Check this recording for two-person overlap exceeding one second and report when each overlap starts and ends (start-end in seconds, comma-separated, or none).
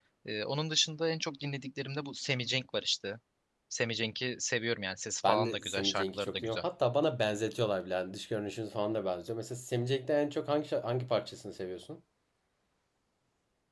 5.2-6.6